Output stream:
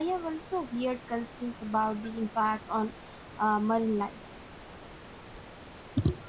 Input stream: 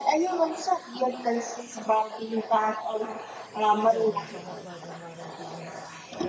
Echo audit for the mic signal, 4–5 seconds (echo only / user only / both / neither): both